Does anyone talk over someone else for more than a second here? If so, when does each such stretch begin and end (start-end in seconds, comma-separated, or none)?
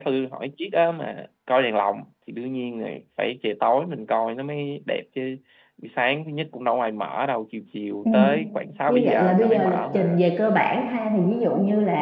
8.9-10.2